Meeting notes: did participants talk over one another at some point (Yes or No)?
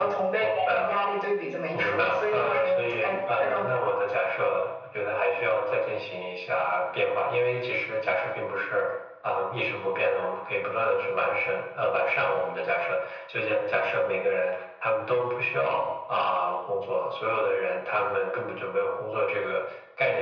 Yes